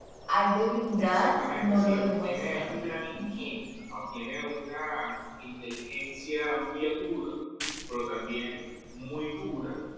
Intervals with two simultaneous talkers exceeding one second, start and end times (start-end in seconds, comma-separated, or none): 1.0-2.8